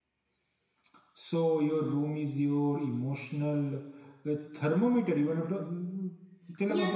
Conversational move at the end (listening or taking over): taking over